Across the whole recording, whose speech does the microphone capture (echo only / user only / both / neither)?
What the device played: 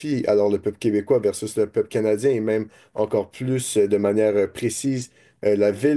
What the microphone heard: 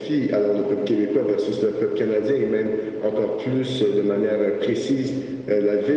echo only